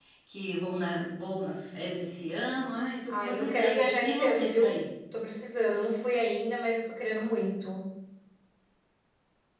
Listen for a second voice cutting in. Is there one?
Yes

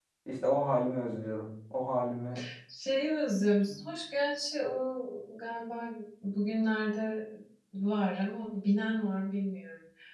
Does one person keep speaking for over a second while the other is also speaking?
No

